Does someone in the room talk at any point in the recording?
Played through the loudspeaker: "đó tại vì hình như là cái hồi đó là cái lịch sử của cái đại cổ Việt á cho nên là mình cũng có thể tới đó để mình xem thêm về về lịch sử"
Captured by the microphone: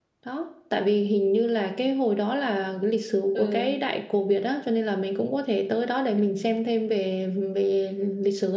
Yes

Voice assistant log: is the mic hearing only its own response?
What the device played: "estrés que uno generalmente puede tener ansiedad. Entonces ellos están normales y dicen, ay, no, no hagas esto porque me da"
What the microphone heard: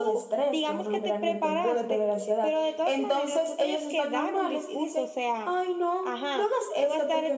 No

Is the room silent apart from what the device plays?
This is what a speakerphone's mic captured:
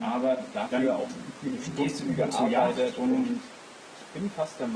No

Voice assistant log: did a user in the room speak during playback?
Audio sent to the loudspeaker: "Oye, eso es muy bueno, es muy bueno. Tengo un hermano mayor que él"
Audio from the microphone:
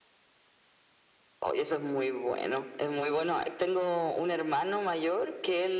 No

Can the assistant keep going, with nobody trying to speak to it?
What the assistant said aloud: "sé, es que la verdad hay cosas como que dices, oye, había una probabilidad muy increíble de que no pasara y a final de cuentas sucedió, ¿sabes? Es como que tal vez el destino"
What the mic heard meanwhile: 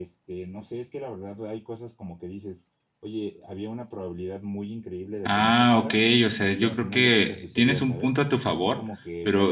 No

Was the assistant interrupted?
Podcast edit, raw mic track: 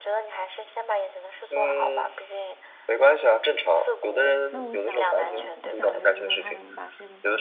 Yes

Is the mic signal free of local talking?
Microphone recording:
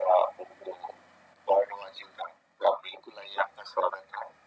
Yes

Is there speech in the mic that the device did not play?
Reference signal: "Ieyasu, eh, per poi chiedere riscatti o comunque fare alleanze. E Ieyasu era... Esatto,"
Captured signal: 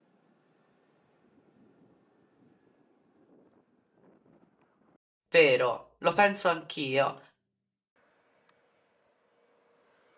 Yes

